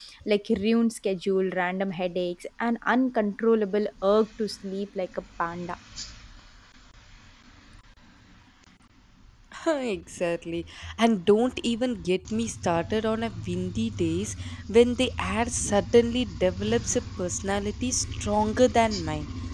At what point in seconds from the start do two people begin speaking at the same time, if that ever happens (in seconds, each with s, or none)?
none